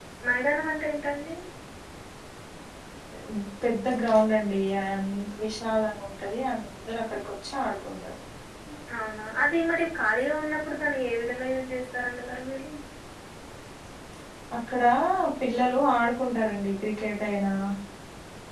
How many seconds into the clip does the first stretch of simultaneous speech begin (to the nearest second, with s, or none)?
none